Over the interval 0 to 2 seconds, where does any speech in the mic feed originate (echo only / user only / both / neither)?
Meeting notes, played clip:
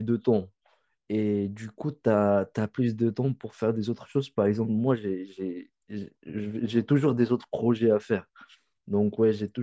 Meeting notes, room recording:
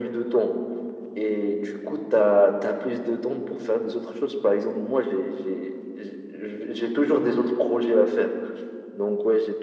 echo only